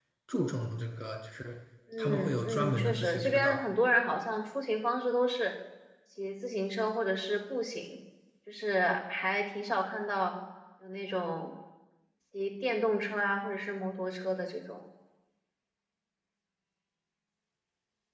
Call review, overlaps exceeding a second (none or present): present